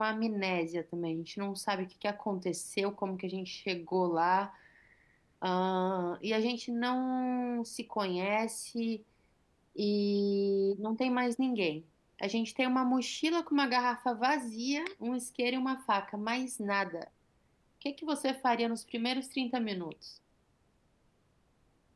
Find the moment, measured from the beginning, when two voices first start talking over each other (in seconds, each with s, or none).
none